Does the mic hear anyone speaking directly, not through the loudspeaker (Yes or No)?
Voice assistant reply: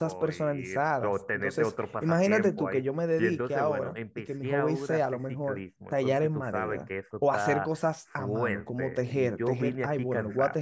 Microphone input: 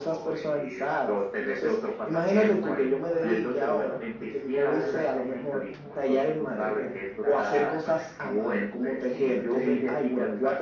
Yes